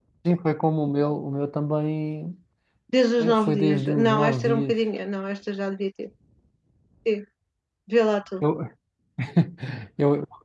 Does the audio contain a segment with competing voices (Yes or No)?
Yes